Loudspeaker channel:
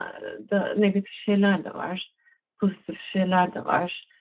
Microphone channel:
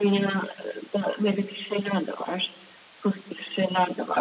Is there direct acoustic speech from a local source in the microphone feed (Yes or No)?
No